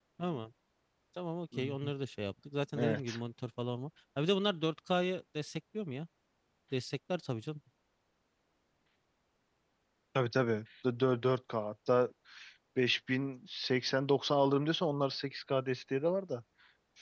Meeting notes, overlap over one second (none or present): none